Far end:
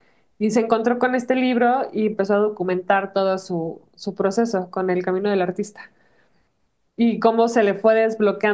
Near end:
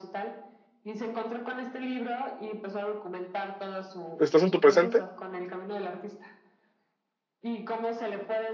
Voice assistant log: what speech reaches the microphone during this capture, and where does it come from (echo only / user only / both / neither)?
both